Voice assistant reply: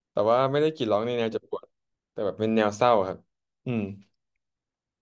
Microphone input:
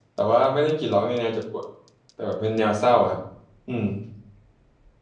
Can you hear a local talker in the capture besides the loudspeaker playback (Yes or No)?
No